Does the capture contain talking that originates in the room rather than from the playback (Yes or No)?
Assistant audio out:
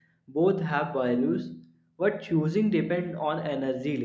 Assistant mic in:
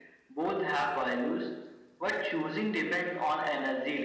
No